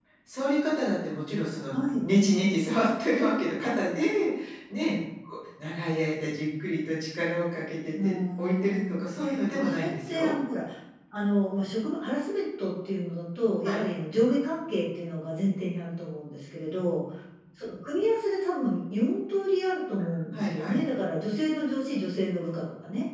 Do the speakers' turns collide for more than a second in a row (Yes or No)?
Yes